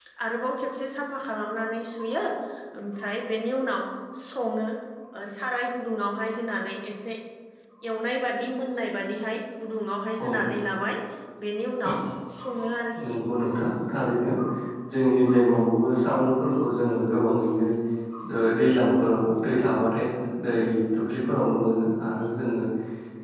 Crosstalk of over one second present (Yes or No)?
No